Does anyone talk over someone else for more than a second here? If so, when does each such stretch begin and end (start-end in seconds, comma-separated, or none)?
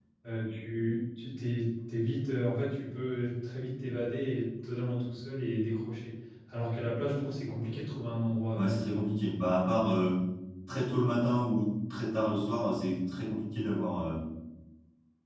none